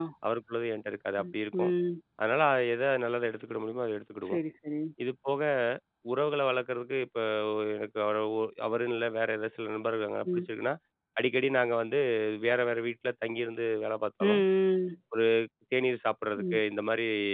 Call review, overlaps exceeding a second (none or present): none